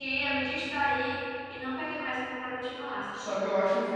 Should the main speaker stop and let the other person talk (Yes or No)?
Yes